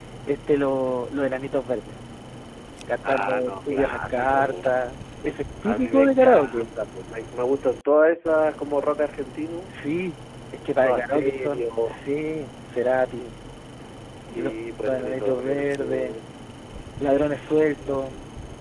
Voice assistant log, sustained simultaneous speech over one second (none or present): present